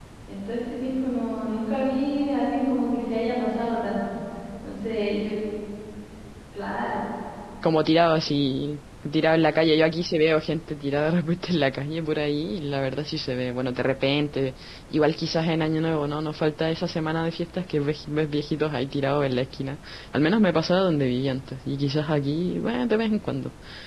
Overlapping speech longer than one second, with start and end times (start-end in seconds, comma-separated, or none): none